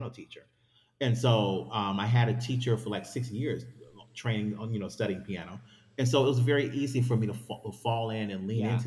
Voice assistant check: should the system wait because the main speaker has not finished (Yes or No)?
Yes